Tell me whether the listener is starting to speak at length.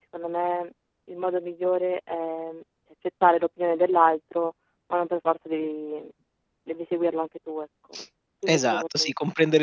Yes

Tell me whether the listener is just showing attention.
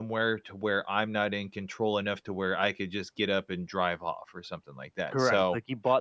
No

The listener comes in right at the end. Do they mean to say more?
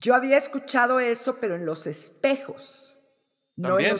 Yes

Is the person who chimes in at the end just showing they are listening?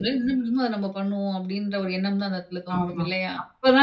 No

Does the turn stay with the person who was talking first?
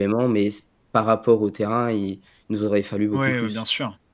No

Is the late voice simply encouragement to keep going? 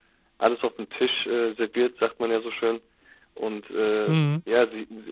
Yes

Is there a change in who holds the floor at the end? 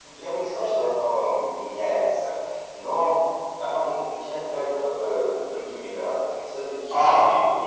No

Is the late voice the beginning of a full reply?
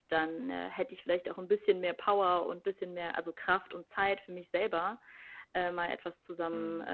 No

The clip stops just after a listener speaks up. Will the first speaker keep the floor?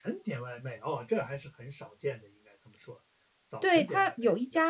No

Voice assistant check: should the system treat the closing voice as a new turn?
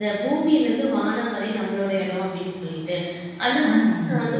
No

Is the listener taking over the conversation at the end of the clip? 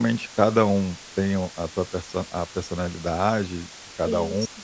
No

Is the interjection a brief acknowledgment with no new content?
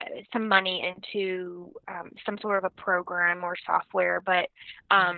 Yes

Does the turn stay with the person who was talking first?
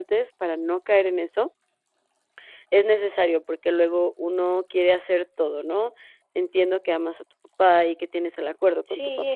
No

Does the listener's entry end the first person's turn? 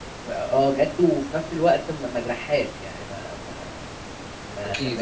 No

